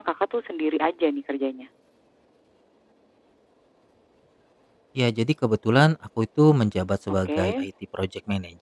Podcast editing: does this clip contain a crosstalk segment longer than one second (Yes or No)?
No